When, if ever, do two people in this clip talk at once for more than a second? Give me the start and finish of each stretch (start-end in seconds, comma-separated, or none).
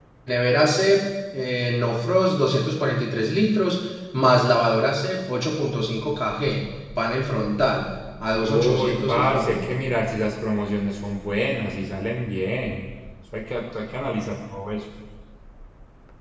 8.4-9.7